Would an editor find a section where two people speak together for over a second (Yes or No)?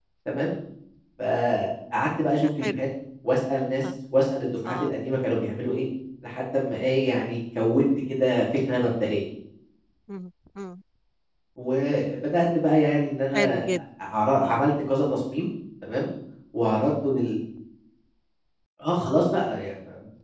No